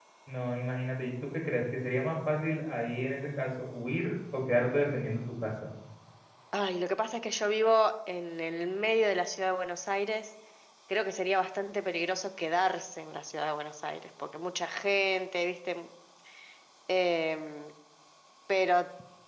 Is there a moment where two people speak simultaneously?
No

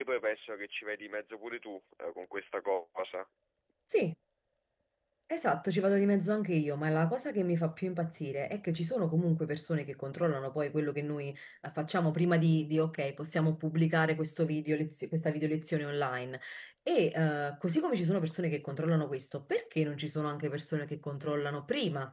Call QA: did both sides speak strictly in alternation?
Yes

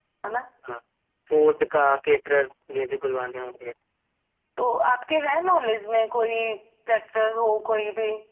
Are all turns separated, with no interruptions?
Yes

